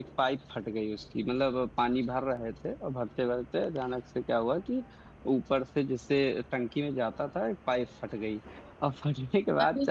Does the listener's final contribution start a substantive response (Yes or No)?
No